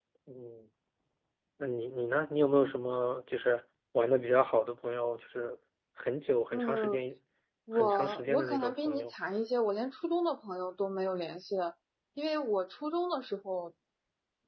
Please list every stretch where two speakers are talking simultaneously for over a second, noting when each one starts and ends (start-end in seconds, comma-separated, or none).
7.7-9.1